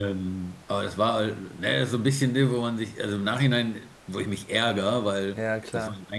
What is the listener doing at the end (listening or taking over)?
listening